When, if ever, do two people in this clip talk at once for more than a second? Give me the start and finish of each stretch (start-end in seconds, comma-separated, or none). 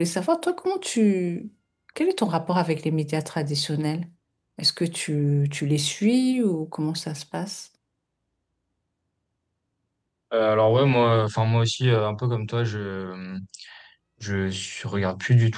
none